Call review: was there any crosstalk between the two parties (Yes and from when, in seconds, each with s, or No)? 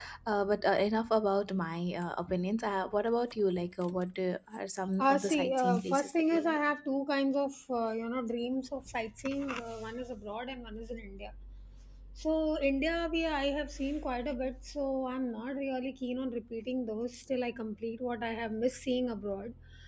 Yes, from 5.0 s